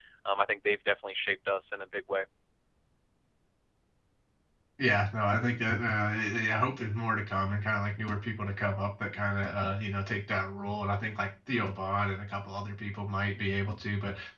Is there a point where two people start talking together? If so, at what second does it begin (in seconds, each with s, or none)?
none